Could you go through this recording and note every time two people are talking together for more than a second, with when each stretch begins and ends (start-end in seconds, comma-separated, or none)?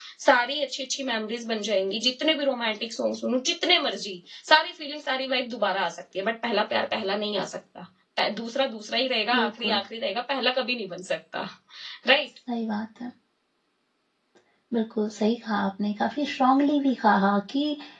none